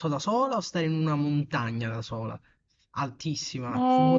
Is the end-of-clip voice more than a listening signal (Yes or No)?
Yes